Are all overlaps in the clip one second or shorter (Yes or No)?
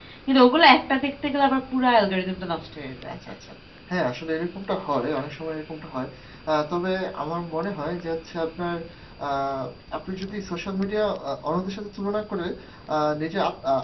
Yes